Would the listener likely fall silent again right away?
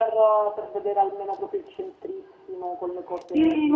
No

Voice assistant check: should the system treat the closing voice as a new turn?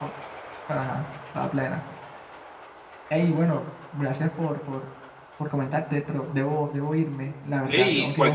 Yes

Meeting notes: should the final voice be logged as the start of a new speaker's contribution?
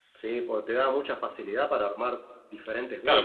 Yes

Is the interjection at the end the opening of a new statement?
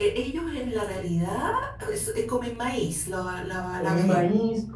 Yes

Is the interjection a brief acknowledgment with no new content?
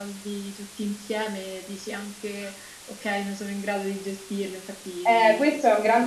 No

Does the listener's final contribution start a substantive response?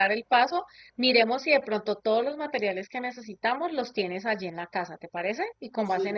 Yes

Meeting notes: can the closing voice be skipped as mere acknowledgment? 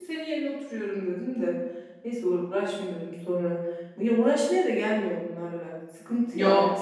No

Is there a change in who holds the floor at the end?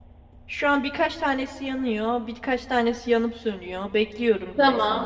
Yes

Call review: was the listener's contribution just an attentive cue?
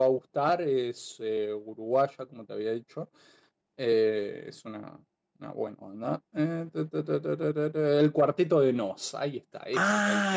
No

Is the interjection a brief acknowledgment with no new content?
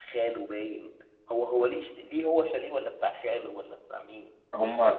No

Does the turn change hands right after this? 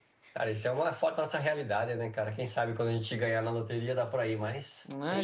Yes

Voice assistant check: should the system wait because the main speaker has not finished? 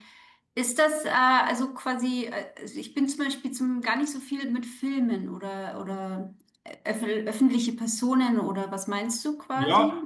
No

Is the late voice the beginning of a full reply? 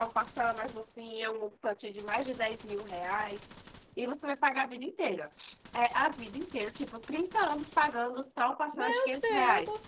Yes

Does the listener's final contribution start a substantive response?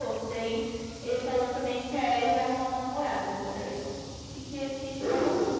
Yes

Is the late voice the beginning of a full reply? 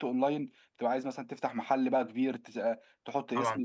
Yes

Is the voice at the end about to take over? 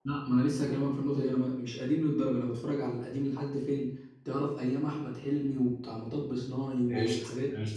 Yes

